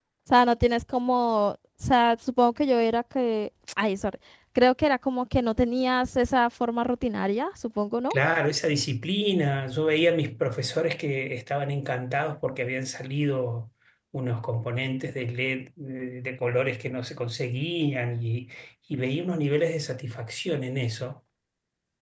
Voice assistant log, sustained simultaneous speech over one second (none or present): none